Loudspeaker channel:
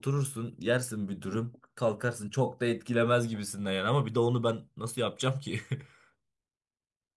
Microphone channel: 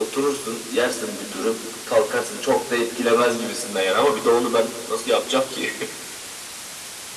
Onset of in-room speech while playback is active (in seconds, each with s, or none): none